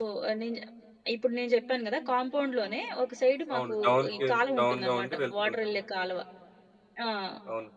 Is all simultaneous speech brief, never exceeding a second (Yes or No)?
No